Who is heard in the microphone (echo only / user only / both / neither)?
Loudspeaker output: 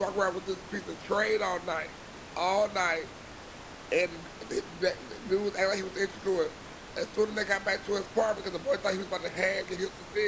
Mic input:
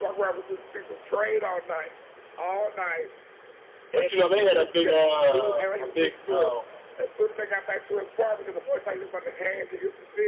both